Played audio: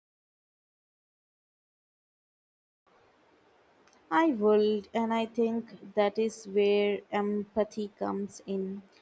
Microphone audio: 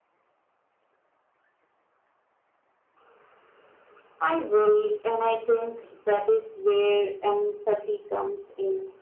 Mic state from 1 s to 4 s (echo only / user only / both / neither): neither